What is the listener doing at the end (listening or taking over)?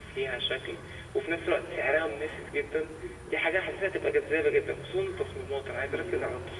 listening